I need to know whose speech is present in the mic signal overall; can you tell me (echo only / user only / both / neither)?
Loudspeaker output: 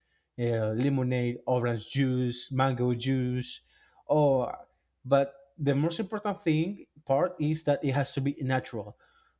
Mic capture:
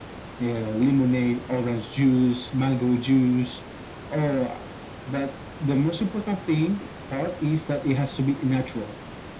echo only